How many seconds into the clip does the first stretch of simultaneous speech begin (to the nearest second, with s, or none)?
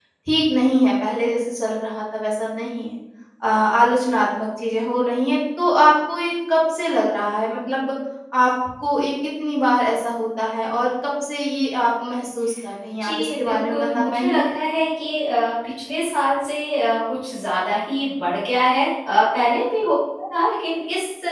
13 s